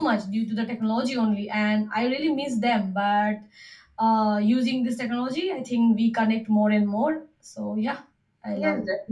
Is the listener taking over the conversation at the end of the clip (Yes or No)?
Yes